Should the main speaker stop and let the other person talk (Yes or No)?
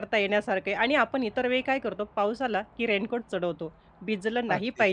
No